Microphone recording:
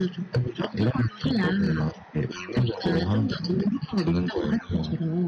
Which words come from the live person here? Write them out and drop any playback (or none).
none